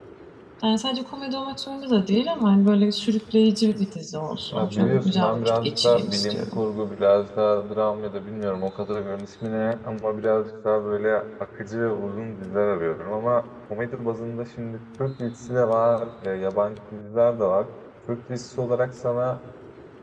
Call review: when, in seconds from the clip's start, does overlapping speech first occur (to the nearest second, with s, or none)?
5 s